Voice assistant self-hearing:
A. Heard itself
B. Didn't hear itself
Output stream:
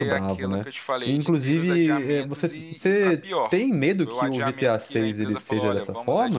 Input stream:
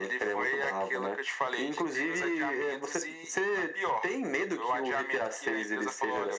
A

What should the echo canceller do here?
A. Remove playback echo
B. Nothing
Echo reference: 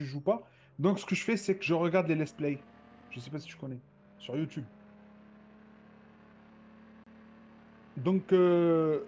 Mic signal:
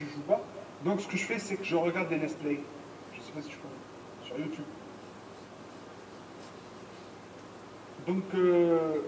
A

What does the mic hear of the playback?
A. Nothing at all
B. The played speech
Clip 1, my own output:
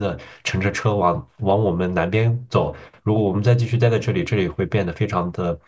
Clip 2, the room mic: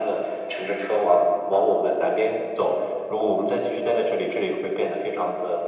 B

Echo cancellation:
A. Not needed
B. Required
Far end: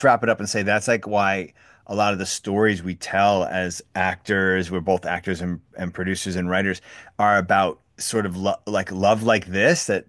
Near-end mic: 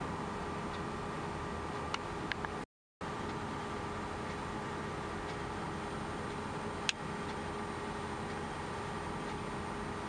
A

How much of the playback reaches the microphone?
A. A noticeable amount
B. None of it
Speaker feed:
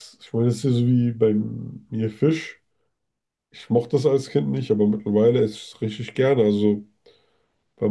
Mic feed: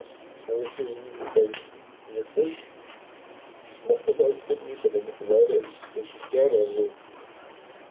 A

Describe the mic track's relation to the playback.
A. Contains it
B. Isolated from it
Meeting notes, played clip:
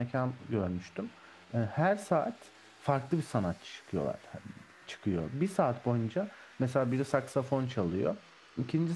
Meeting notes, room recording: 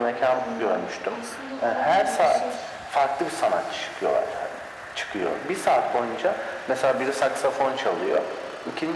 A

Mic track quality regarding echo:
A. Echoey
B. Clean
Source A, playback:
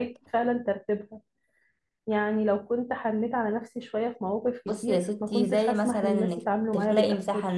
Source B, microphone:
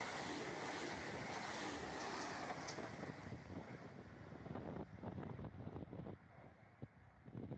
B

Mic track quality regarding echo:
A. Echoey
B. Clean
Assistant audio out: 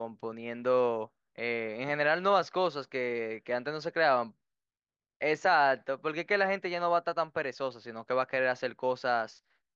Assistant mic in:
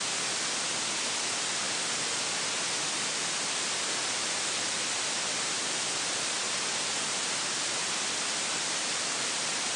B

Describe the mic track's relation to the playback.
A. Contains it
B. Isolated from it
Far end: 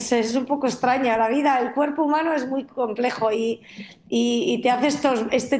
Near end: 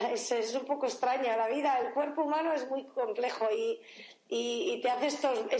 A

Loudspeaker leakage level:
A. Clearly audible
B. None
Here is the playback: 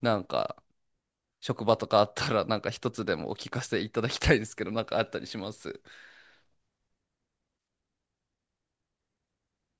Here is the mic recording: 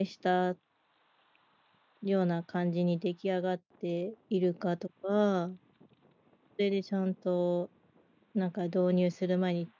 B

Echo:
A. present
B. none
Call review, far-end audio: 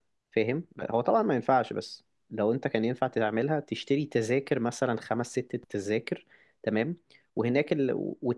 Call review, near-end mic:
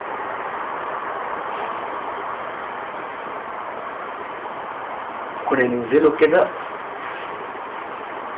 B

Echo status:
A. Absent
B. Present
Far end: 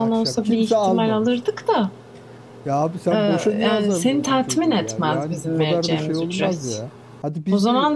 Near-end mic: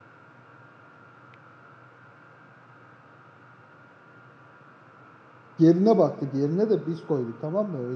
A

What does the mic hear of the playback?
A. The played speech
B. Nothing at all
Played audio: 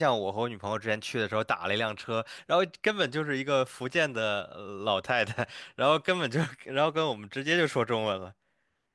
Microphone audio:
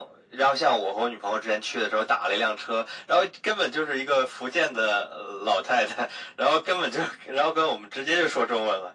A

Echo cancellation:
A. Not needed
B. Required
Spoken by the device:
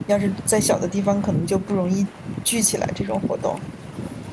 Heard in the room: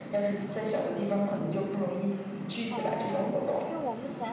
B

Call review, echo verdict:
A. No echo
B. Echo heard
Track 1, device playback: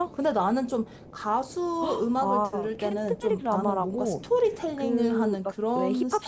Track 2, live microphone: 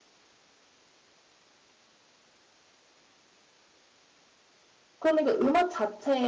A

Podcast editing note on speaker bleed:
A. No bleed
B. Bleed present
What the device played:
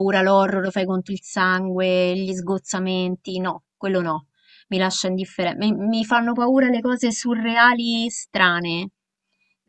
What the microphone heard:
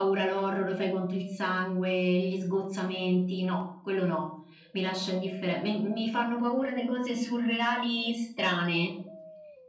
B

